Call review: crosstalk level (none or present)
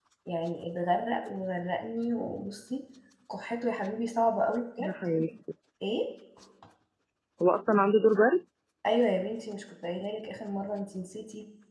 none